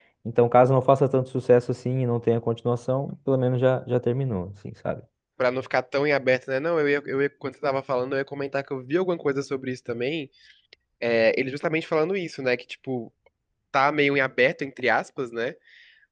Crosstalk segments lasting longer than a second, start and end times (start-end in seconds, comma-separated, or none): none